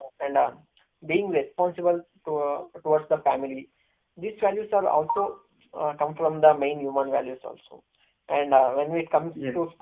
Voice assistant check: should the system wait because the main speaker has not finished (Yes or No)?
Yes